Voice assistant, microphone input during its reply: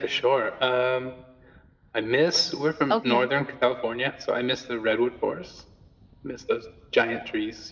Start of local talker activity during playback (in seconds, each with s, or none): 2.9 s